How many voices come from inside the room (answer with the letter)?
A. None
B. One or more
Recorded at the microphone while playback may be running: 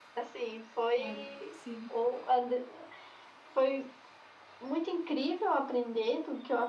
B